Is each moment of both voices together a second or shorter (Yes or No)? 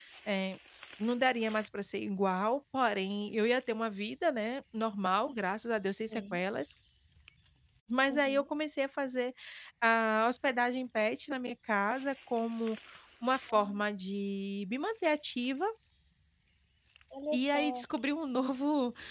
Yes